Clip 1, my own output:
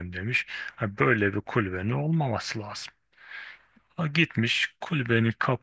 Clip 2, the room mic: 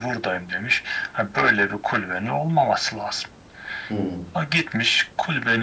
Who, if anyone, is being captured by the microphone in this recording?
both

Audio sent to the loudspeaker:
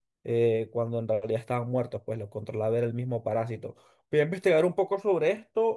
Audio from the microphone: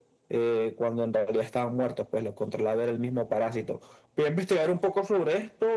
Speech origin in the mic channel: echo only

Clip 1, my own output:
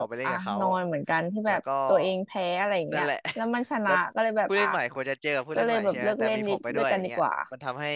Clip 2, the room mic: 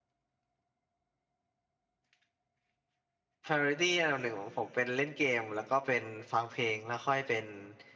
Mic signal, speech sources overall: user only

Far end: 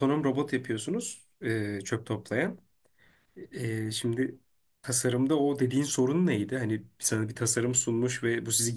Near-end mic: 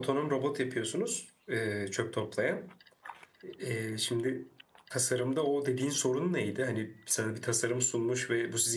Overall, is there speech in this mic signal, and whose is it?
echo only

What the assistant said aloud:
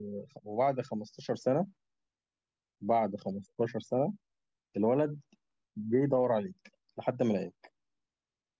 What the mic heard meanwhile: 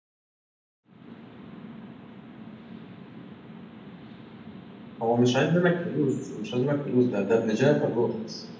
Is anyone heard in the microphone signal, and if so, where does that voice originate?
user only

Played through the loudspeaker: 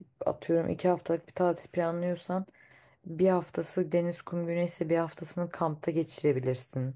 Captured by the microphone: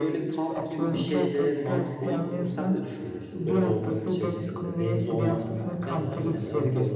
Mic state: both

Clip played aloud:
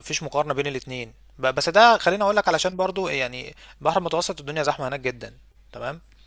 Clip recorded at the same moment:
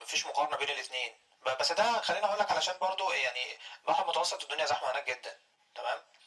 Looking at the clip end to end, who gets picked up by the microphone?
echo only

